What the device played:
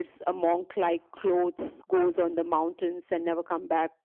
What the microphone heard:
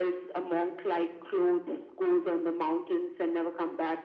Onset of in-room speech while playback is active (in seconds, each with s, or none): none